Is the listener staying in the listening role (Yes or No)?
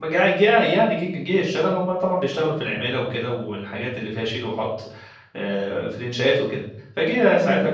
Yes